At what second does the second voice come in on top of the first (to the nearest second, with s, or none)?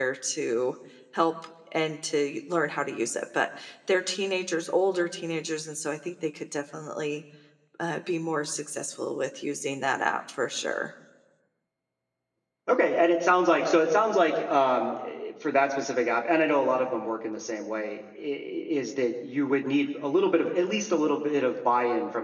none